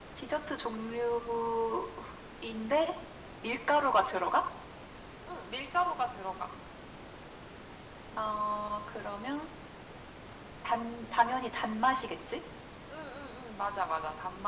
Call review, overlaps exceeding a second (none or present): none